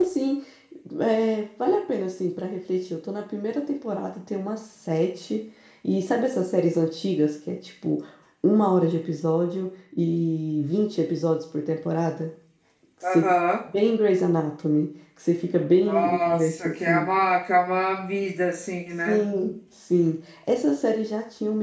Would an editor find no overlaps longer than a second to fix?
No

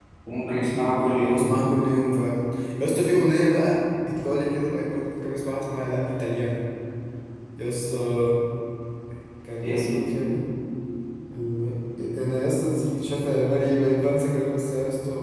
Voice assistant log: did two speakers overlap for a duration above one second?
No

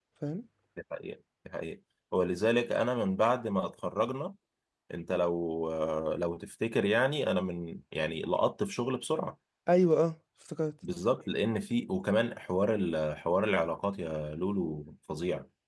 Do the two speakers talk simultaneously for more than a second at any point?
No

